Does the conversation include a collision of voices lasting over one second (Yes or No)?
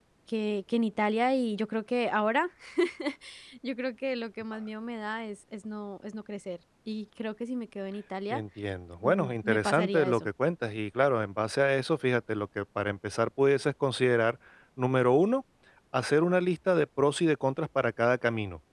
Yes